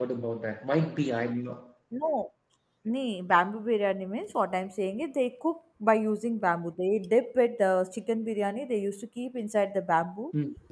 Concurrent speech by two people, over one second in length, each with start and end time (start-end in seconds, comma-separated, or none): none